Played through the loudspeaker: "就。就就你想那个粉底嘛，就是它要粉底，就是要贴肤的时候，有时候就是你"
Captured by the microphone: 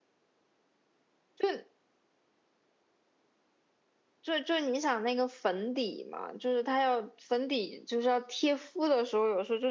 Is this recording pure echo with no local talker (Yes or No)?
Yes